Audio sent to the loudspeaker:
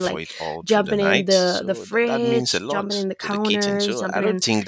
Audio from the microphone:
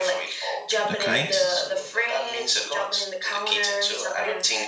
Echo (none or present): present